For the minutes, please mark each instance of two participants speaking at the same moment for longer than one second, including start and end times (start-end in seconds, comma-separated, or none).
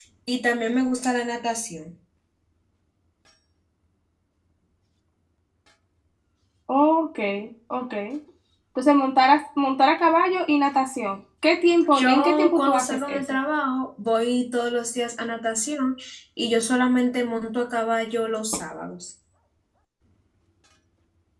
11.9-13.4